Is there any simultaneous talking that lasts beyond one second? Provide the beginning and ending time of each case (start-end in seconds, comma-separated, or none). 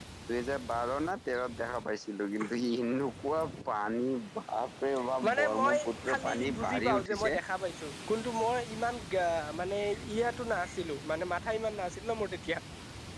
5.3-7.3